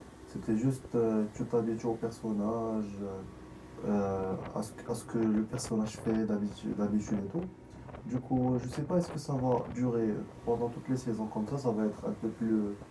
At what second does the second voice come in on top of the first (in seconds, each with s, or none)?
none